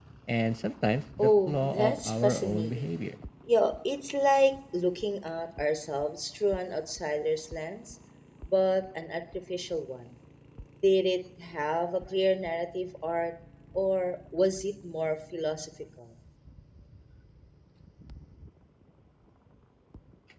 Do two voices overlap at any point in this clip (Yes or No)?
Yes